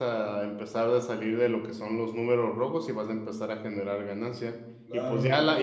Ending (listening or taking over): listening